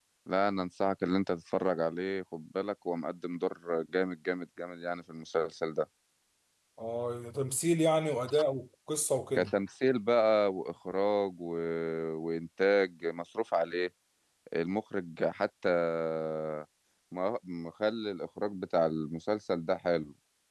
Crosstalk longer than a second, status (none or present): none